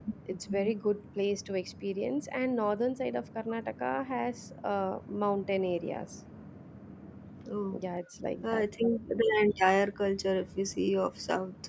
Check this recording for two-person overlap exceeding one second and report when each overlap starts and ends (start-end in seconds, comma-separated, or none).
none